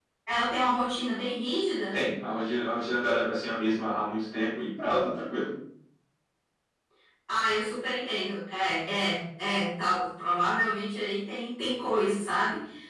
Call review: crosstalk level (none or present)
none